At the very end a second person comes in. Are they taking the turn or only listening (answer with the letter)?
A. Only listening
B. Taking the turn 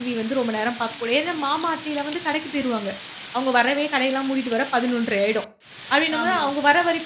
A